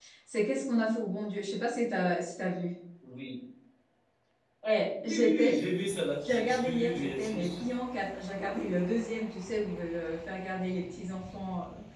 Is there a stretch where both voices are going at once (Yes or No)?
Yes